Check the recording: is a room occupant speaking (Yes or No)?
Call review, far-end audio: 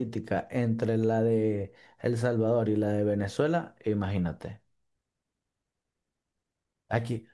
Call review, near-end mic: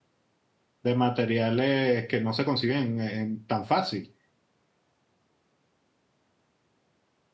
Yes